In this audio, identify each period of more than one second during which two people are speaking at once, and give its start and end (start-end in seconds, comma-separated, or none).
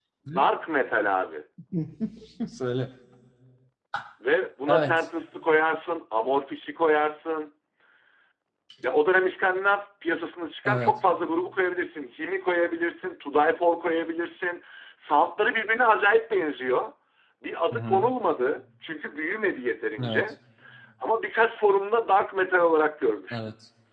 none